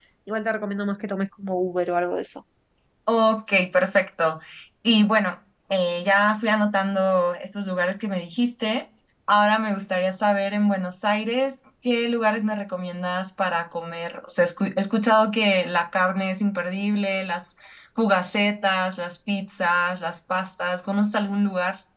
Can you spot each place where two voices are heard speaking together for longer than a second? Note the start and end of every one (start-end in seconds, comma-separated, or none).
none